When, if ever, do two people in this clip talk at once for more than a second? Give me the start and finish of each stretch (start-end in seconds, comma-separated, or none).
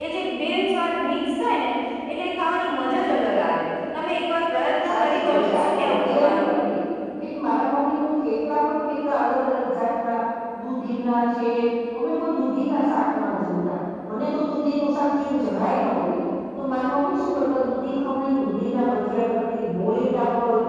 4.8-6.5